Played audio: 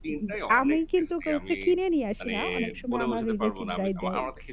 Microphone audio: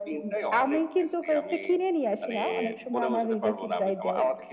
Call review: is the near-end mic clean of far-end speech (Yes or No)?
No